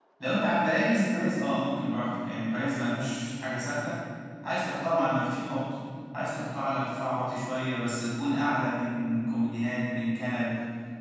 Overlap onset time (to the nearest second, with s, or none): none